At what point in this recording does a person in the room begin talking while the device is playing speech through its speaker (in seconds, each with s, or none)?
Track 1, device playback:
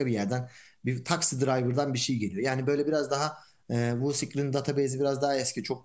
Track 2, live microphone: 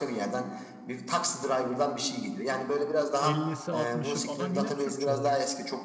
3.2 s